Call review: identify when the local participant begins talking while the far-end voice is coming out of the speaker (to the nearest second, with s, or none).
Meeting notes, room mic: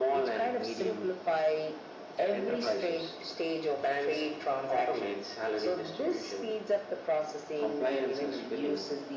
none